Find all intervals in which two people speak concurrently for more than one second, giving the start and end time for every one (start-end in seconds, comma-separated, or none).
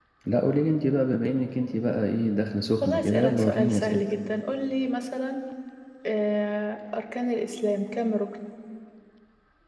2.8-4.0